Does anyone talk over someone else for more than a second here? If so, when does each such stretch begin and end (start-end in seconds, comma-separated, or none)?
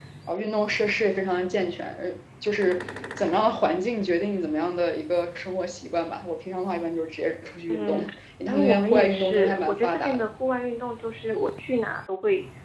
8.5-10.3